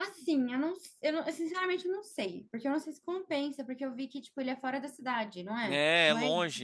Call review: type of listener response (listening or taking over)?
taking over